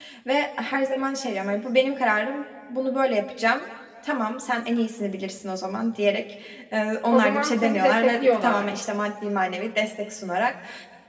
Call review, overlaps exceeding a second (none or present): present